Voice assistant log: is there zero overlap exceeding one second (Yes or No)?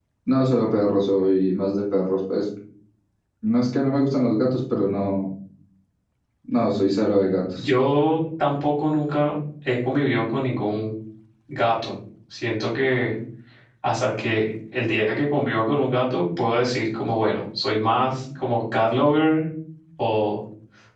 Yes